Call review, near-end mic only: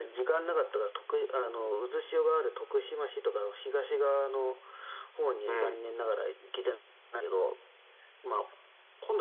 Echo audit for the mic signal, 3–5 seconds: echo only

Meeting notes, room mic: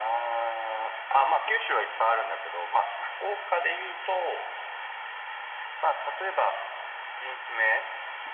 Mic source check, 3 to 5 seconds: echo only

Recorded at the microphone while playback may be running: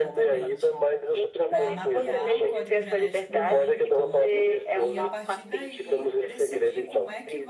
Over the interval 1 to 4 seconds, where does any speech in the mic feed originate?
both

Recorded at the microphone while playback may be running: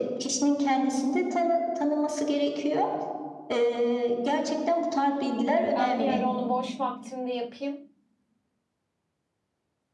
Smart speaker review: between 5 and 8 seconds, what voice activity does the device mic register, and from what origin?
both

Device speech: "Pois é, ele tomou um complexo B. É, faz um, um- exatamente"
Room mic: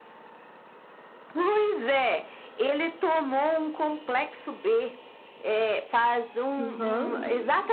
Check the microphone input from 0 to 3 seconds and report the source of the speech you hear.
echo only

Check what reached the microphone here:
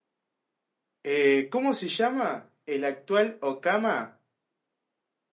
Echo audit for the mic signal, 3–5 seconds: user only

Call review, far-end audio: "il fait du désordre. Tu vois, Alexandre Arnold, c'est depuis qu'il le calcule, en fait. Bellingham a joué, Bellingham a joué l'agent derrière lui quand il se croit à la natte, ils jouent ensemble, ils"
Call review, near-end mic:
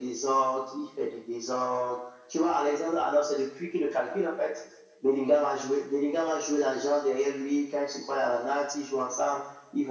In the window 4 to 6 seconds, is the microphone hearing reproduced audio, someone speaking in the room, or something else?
echo only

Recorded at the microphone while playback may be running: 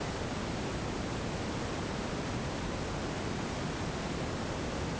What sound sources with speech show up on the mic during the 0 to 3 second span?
neither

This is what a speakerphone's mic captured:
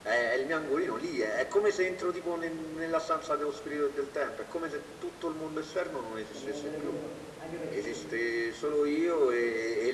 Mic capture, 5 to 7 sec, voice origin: both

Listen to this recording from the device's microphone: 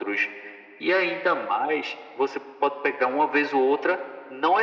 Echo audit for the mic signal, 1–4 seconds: echo only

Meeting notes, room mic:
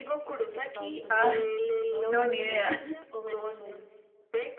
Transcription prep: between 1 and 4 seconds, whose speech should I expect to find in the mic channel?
both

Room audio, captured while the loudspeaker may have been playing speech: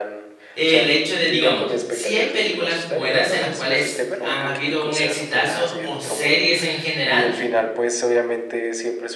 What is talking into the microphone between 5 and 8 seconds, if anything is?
both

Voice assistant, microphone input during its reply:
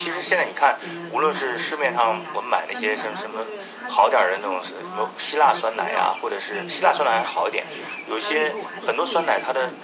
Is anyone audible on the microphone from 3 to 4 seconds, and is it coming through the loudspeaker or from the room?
both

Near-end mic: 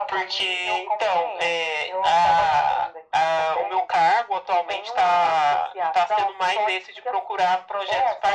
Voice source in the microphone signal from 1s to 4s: echo only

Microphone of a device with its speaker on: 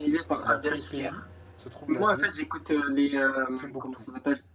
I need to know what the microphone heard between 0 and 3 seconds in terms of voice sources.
both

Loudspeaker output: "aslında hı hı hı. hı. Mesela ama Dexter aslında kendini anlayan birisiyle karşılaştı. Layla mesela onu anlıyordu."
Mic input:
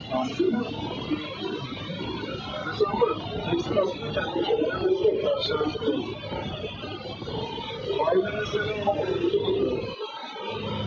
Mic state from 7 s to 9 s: echo only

